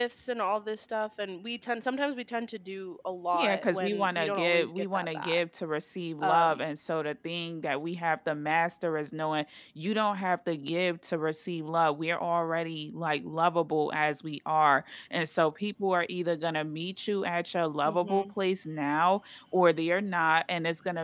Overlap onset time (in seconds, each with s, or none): 3.4 s